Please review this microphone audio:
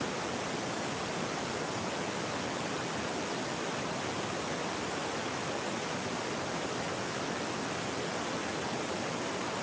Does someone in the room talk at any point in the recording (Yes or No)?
No